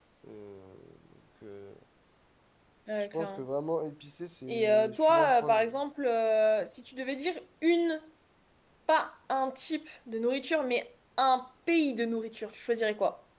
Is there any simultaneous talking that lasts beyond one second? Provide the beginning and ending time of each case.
4.5-5.7

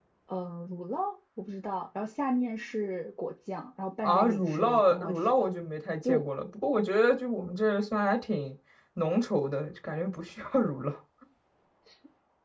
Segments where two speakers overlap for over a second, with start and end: 4.0-5.5

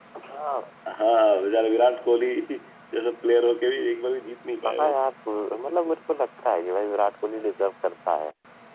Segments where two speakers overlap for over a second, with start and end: none

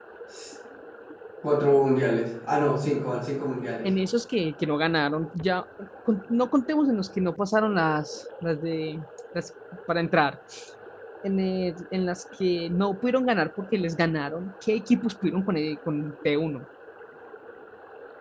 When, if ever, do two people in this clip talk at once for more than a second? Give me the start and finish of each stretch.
none

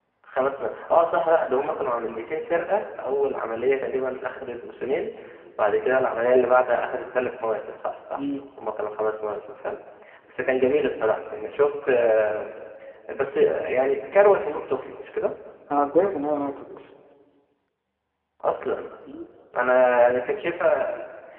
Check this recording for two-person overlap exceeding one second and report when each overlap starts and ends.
none

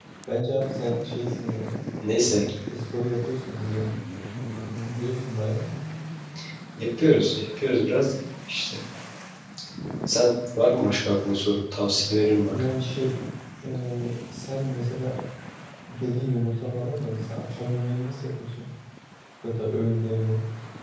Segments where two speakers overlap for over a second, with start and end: none

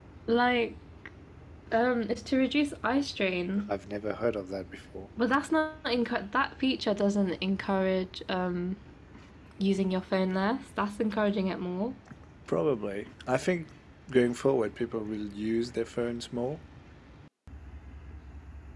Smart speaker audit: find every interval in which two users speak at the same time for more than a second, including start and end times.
none

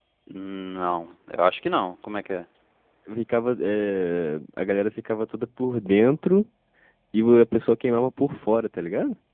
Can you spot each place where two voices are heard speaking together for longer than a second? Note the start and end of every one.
none

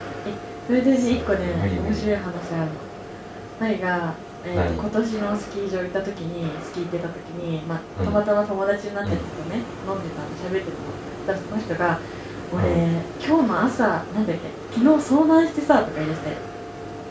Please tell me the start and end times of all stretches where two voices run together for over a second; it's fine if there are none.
1.0-2.2

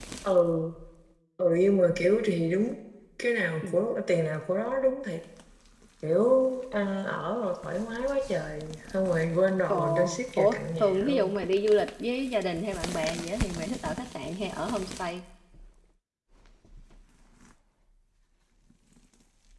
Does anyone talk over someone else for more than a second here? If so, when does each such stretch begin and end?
9.7-11.3

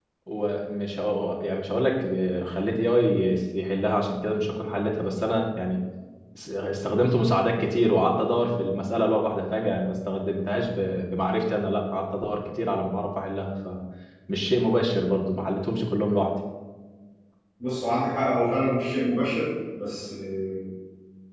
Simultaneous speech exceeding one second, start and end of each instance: none

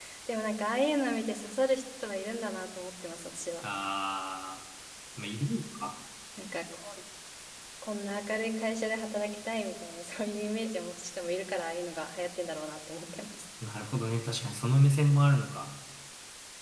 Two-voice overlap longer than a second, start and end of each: none

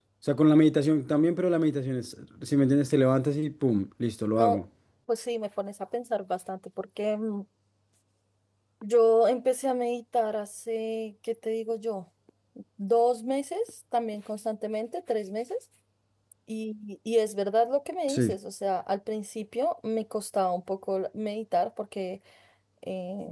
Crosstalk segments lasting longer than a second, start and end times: none

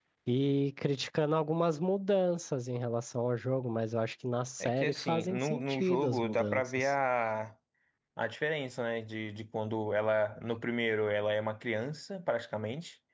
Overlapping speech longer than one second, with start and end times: 4.6-6.9

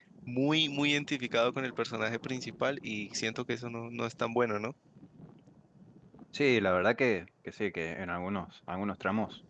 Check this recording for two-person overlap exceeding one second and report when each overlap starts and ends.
none

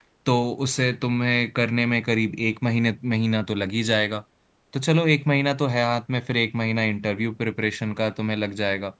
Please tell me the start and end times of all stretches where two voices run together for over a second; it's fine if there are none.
none

